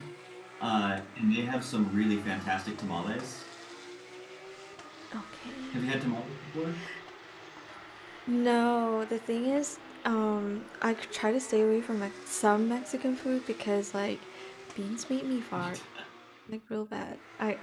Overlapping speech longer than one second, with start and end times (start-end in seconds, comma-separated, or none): none